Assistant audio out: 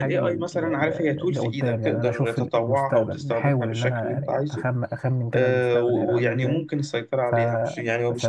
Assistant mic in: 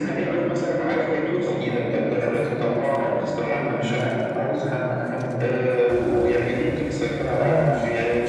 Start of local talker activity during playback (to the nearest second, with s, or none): 7 s